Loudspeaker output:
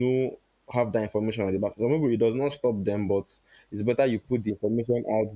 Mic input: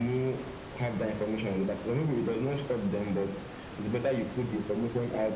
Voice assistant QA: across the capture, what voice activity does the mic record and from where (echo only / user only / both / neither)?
echo only